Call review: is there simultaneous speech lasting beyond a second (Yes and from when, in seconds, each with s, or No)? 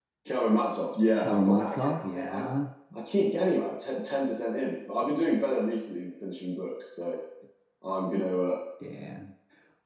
Yes, from 1.2 s